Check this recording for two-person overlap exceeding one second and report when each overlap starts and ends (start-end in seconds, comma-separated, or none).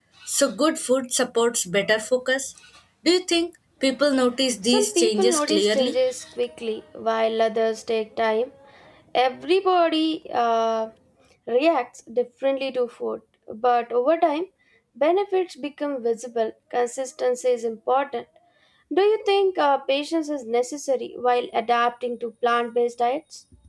4.6-5.9